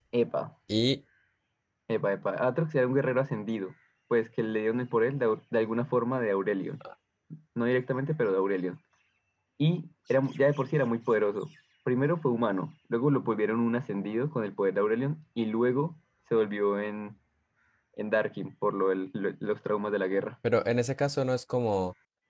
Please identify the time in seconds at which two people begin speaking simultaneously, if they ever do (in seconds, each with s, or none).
none